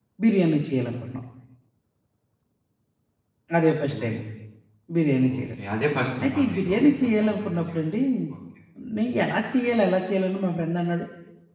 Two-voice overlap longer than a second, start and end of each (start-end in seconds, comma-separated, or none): 6.2-7.9